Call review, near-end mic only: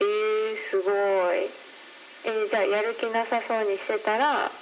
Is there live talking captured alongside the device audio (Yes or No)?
No